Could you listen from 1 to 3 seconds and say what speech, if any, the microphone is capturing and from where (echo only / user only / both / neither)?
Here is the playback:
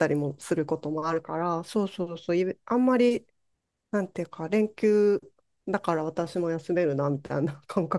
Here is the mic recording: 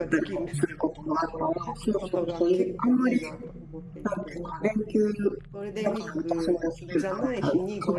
both